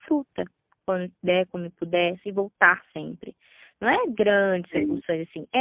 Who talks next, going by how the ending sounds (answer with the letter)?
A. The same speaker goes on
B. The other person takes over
A